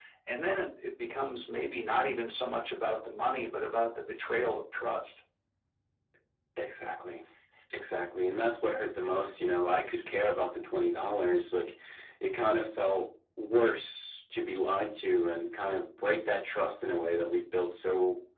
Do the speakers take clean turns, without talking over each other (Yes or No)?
Yes